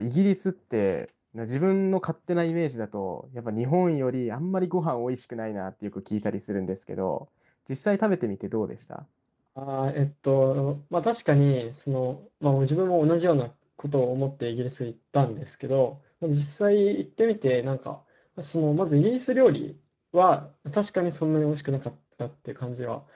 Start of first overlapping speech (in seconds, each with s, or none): none